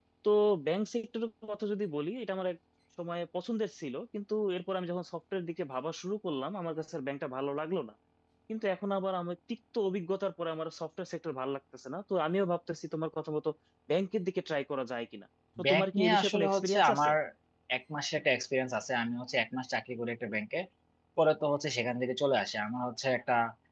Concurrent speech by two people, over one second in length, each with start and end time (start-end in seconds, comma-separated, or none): 15.7-17.1